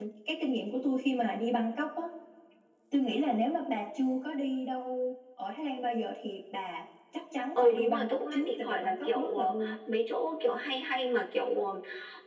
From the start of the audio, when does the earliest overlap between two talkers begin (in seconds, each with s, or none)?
7.5 s